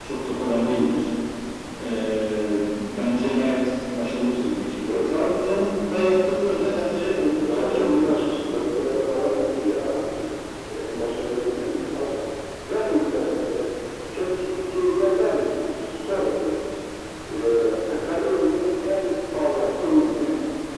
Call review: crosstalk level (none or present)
present